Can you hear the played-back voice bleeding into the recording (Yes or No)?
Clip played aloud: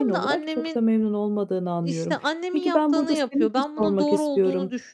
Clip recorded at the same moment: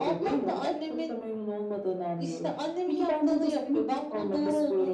Yes